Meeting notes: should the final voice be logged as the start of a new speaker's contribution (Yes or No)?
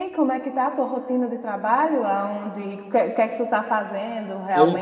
Yes